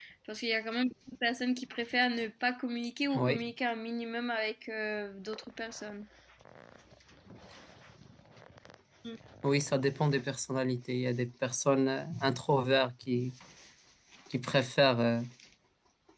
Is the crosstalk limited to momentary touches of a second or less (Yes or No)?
Yes